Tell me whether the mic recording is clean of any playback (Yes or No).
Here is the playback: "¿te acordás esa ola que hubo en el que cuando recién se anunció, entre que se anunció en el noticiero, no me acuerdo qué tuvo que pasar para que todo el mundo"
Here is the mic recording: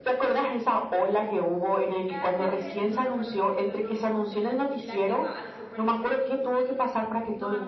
No